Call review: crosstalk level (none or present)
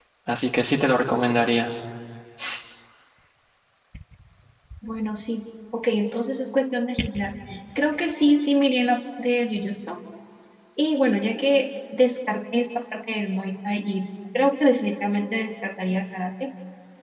none